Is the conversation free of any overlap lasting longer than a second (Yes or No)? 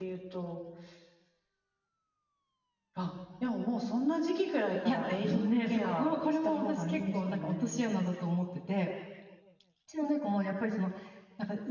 No